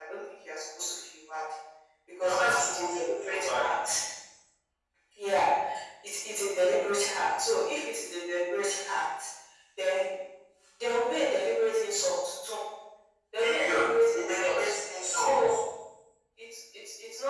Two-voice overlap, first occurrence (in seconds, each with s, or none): 2.2 s